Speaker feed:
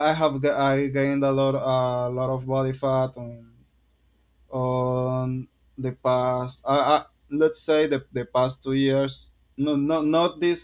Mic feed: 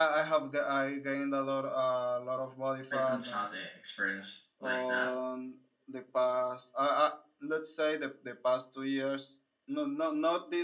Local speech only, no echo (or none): I don't have the experience like that.